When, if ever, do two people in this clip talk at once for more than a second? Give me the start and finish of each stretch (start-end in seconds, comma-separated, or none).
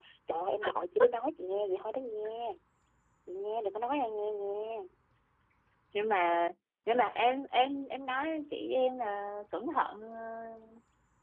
none